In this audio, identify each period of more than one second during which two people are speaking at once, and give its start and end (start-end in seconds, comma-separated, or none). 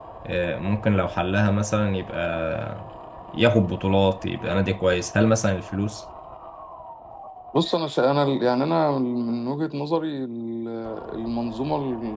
none